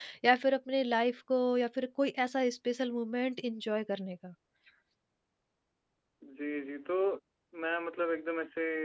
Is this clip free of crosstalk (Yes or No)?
Yes